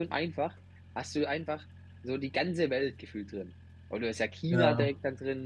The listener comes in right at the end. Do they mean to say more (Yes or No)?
No